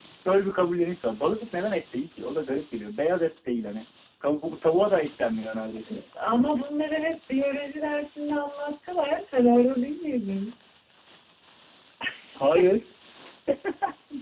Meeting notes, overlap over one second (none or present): none